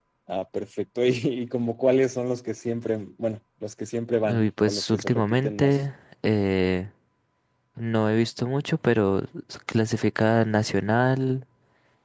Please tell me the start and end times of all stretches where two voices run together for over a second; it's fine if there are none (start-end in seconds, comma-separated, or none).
4.2-5.8